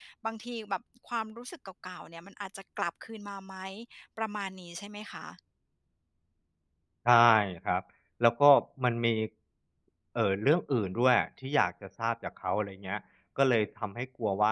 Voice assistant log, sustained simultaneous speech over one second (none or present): none